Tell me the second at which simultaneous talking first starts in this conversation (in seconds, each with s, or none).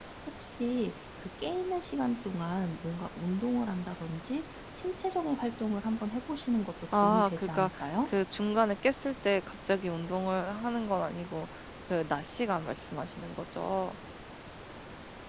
6.9 s